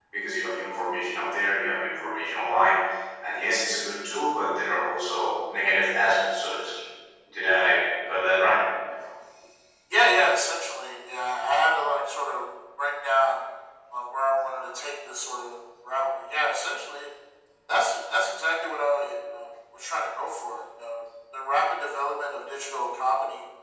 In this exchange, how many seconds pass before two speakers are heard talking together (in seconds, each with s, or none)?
none